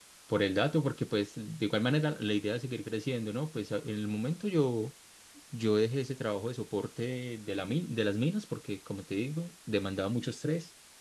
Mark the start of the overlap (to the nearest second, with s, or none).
none